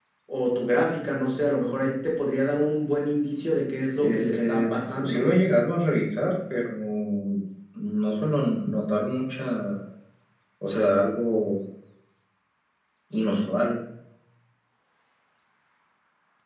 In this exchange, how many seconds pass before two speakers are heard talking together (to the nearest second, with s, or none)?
4 s